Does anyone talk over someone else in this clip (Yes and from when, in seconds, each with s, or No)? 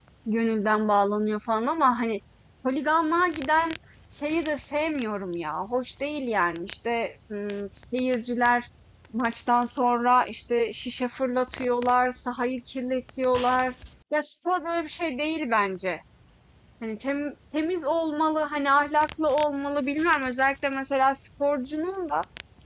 No